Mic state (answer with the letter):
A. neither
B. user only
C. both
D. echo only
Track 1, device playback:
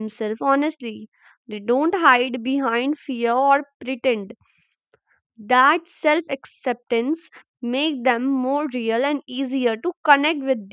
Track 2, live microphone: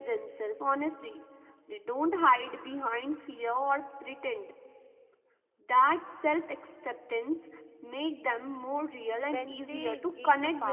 C